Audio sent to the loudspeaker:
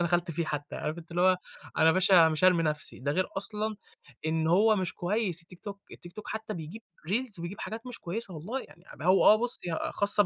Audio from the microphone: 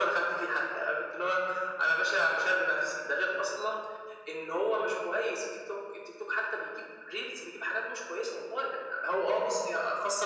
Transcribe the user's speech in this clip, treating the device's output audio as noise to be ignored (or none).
none